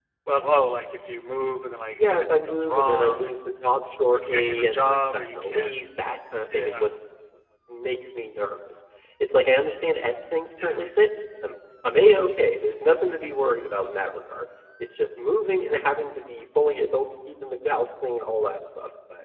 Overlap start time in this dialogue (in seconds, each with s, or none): 1.9 s